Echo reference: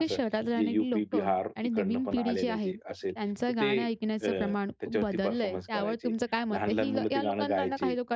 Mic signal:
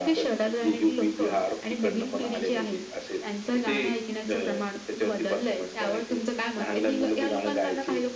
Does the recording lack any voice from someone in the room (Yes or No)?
Yes